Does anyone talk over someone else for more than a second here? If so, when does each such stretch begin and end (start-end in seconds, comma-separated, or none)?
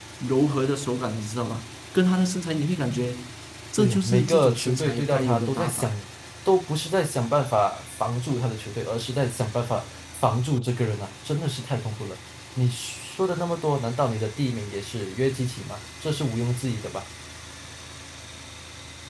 3.8-5.9